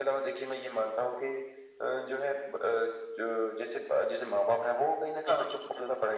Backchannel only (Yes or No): Yes